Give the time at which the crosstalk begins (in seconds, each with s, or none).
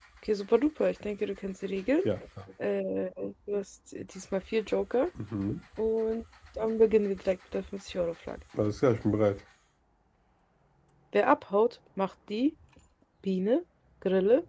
none